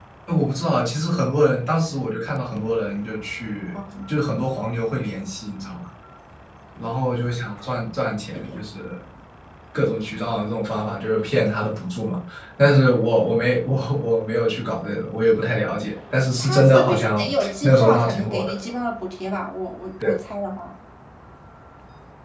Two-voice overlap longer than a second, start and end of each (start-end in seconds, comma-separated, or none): 16.4-18.5